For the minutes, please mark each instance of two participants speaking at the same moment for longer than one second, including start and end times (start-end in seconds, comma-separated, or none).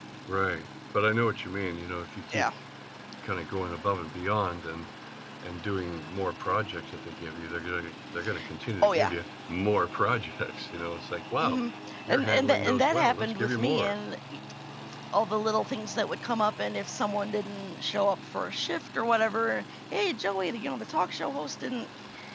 12.1-13.9